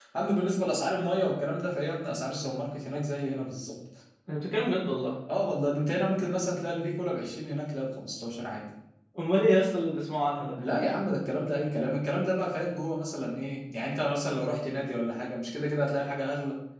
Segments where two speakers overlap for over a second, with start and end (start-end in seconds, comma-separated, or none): none